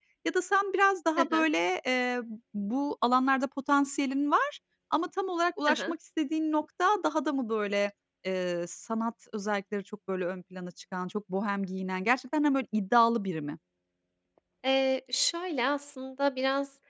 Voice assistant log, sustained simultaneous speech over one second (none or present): none